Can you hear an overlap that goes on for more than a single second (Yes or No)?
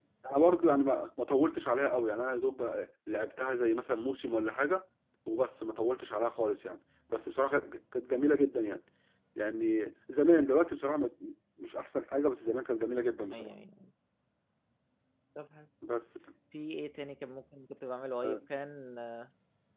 No